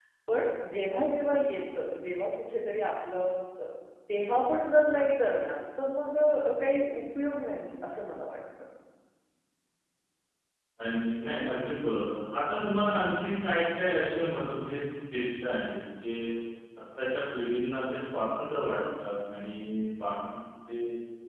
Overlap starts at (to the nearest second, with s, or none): none